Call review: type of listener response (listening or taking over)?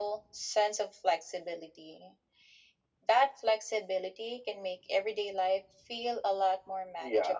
taking over